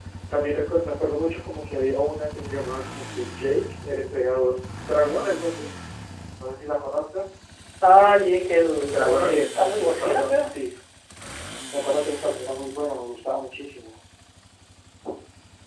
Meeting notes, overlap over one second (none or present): present